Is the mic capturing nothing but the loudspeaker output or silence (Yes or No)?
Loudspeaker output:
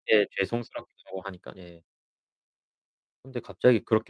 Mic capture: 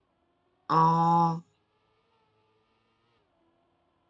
No